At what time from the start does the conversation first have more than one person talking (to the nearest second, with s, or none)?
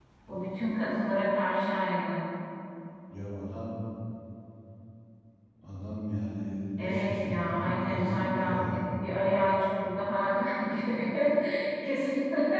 7 s